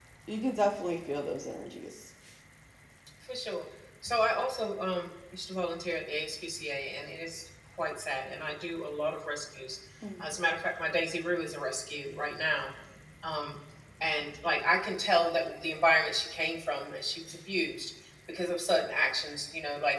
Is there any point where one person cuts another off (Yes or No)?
No